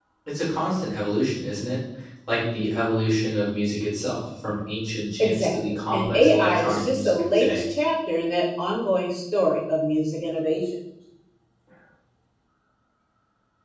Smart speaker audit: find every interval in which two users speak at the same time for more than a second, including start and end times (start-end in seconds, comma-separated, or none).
5.2-7.6